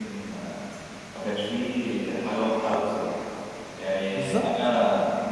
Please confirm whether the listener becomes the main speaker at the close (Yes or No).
No